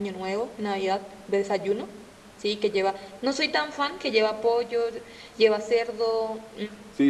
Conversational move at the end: taking over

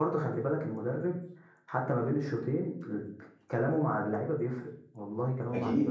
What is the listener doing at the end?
taking over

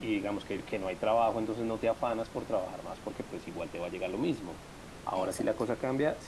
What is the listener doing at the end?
listening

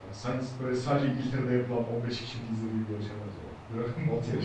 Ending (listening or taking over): taking over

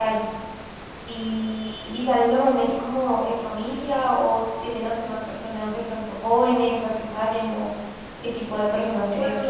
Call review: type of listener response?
listening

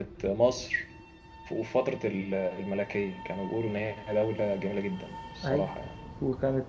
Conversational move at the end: taking over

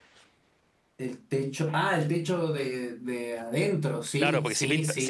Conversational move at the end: taking over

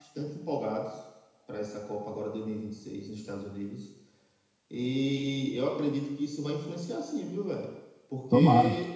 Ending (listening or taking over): listening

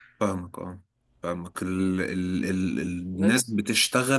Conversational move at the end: listening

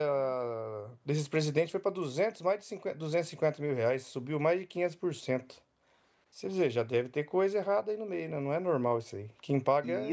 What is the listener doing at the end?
taking over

